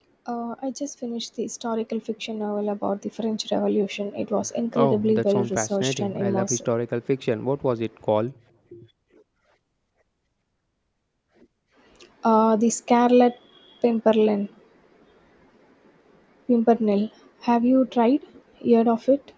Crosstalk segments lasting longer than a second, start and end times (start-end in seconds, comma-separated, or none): 4.8-6.6